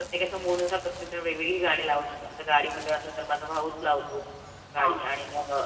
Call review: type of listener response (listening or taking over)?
listening